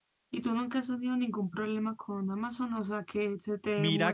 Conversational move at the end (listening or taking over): taking over